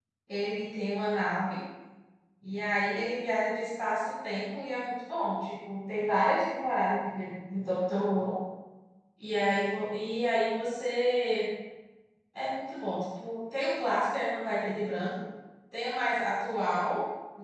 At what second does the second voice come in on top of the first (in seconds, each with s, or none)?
none